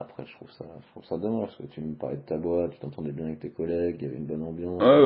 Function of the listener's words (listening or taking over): taking over